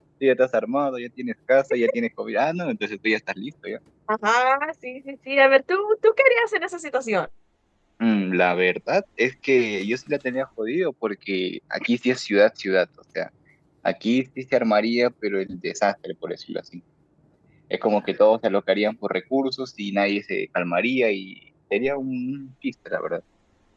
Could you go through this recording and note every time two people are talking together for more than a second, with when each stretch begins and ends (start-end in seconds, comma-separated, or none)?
none